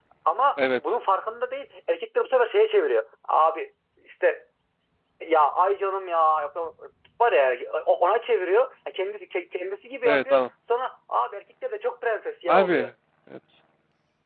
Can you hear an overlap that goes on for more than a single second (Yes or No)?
No